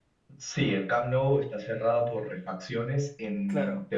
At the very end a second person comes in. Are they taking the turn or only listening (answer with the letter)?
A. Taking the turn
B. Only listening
B